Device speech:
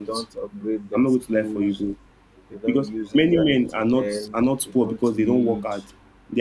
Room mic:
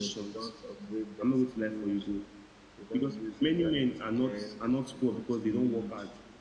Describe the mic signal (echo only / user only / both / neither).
echo only